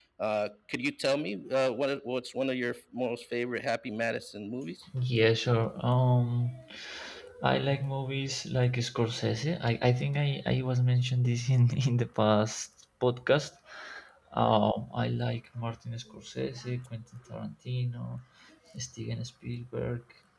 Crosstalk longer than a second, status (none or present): none